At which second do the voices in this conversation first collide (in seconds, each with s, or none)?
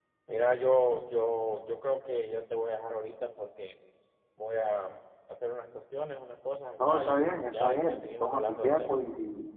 6.8 s